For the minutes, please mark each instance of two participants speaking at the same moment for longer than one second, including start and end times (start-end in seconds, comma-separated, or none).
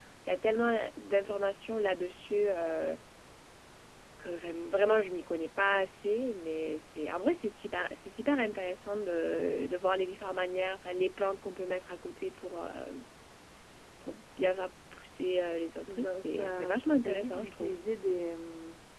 15.9-17.8